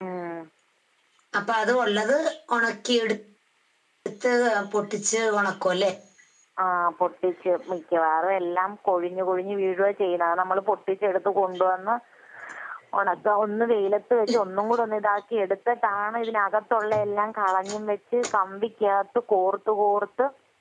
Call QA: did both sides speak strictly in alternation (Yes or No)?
Yes